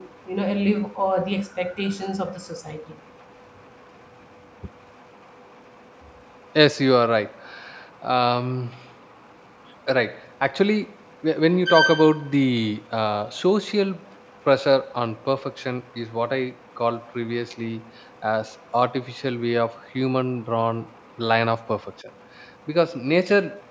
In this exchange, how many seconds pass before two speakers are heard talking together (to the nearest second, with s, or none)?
none